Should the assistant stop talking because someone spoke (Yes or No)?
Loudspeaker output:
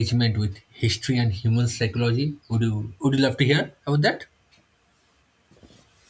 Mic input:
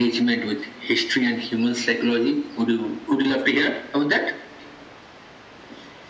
No